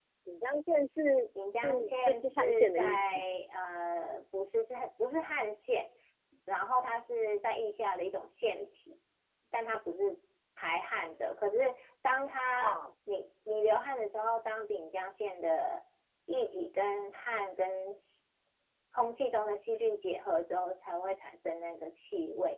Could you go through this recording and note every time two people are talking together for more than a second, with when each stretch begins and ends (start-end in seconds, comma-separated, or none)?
1.6-3.2